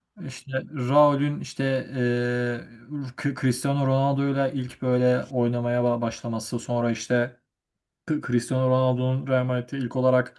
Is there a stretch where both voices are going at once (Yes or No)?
No